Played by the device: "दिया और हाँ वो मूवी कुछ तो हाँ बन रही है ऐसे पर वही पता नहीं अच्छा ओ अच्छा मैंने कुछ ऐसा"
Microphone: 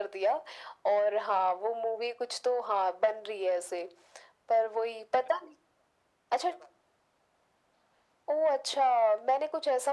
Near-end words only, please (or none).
none